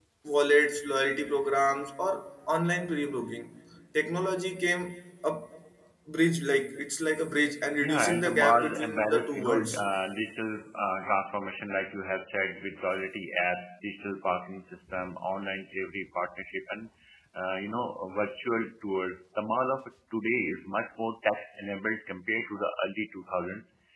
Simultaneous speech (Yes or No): Yes